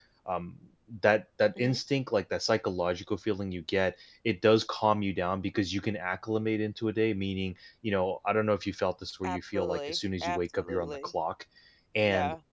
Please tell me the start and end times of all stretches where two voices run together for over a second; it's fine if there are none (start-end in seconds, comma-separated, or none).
9.2-11.1